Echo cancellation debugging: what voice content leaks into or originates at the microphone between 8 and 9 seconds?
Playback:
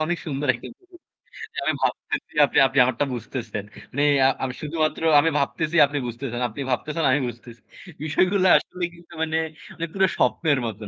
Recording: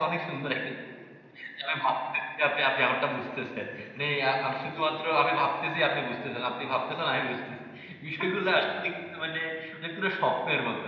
echo only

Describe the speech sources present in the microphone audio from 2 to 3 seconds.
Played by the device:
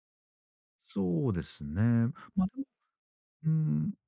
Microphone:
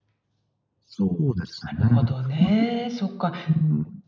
both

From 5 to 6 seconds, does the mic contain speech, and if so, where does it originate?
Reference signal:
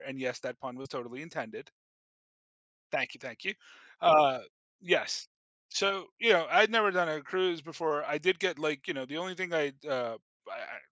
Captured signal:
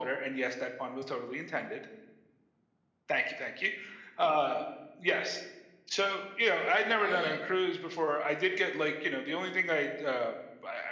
echo only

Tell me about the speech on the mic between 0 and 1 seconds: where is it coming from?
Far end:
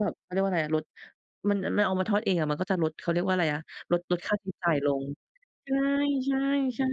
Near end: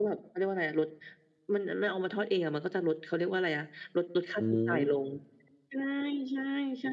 echo only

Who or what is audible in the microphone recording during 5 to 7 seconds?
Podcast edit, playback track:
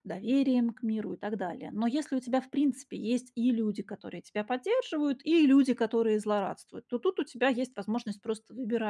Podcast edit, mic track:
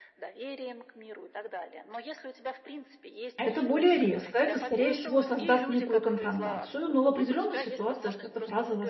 both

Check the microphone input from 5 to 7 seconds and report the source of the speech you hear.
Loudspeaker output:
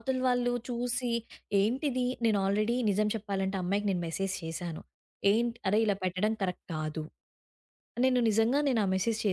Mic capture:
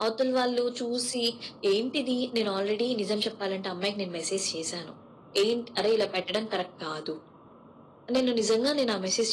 echo only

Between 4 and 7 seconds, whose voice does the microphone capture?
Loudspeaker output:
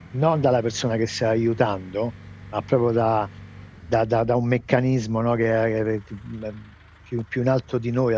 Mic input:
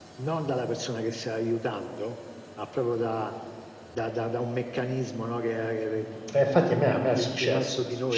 both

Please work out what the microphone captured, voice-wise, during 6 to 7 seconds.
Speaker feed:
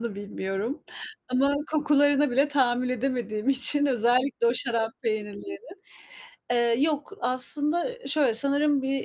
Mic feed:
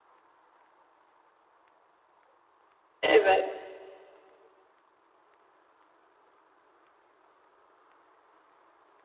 neither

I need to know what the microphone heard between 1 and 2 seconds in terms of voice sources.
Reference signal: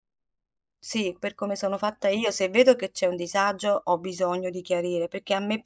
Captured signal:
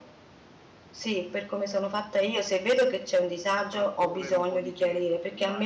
echo only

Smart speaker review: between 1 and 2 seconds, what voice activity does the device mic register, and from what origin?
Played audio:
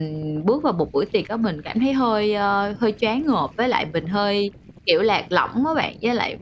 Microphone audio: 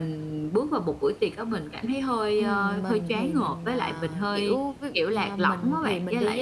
echo only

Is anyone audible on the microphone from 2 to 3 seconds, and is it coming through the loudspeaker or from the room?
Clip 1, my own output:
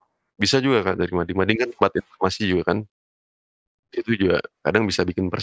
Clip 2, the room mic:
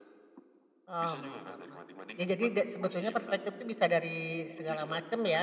both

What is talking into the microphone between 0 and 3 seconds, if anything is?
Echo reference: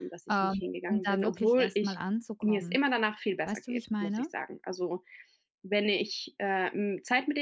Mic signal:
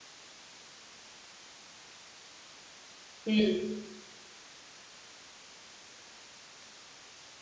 neither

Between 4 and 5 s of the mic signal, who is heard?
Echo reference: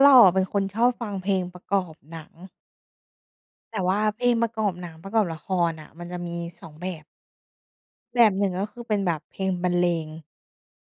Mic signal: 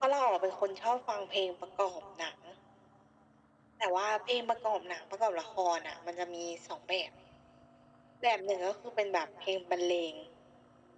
echo only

